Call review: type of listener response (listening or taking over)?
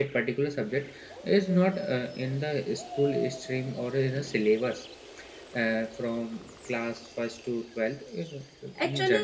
taking over